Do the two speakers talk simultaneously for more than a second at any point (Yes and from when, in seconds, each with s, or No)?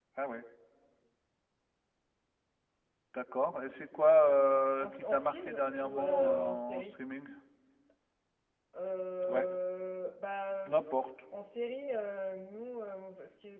Yes, from 4.8 s